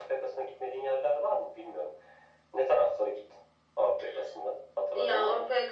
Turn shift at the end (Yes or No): Yes